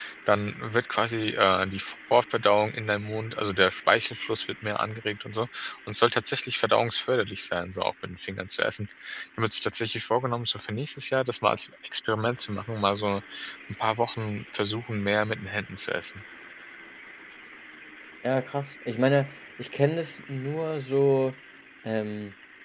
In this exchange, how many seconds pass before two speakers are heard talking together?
none

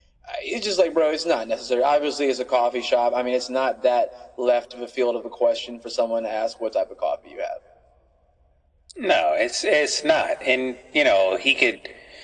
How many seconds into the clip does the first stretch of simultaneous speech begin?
none

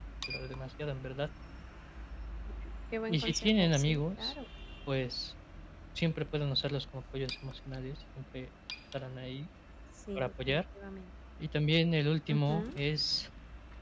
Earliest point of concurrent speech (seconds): 3 s

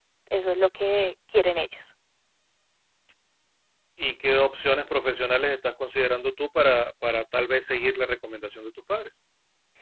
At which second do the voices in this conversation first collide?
none

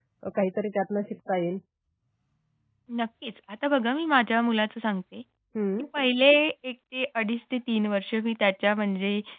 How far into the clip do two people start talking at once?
none

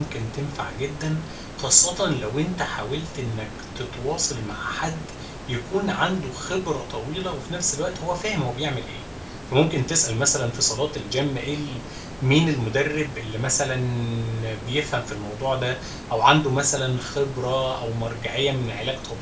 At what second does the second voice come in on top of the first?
none

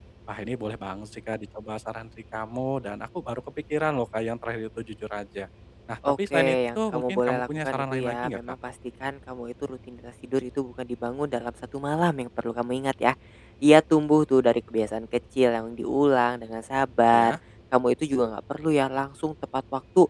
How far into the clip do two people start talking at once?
6 s

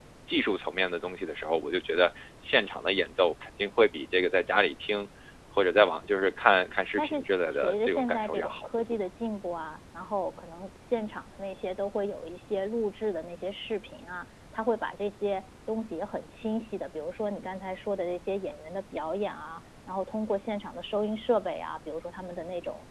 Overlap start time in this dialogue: 7 s

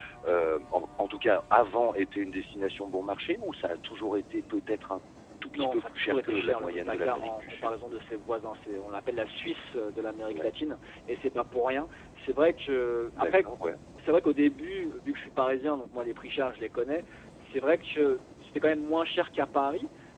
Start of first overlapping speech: 6 s

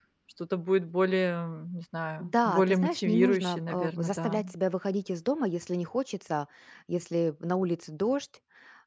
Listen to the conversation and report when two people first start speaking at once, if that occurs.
2 s

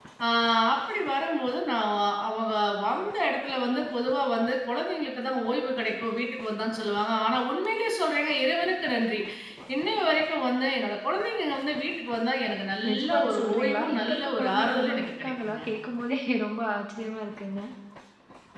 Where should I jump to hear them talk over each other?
13 s

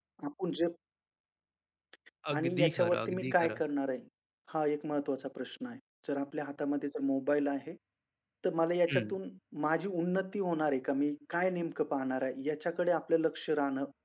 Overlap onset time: 2 s

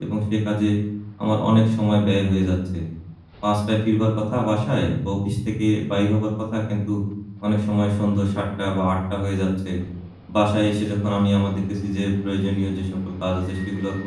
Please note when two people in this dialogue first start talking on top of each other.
none

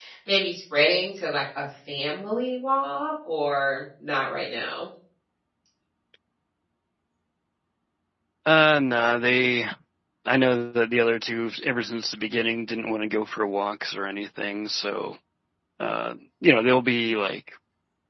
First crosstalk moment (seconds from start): none

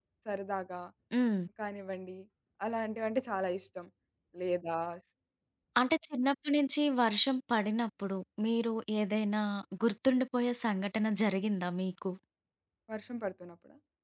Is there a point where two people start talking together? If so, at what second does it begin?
none

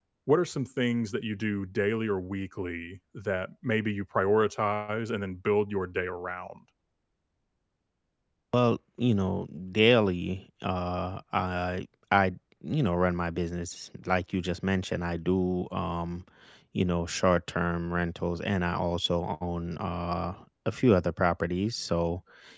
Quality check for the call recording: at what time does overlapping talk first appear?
none

